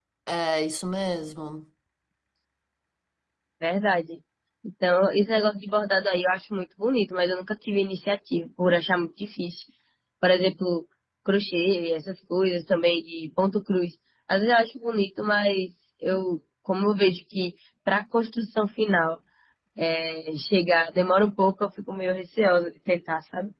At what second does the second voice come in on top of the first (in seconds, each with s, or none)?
none